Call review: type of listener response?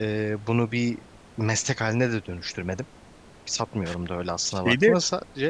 listening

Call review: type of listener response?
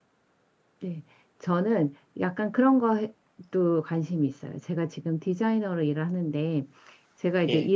listening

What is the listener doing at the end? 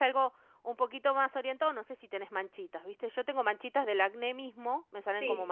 taking over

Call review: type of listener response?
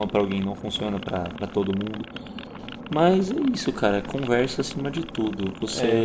taking over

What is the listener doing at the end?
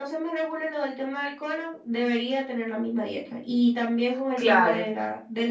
listening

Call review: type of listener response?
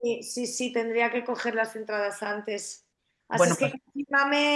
listening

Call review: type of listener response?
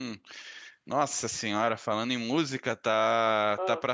listening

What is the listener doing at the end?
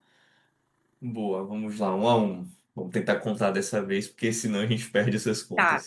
taking over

